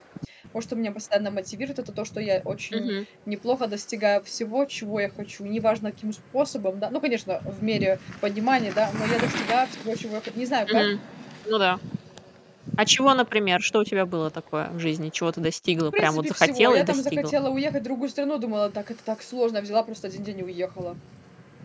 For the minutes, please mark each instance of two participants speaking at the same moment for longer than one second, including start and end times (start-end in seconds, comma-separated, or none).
16.0-17.3